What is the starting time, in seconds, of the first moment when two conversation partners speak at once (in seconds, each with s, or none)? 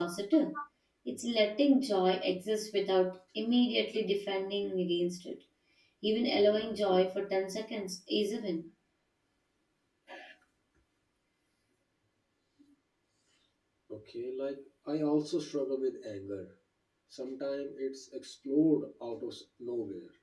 none